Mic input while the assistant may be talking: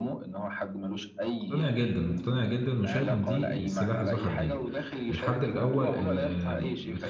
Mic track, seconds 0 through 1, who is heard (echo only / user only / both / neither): echo only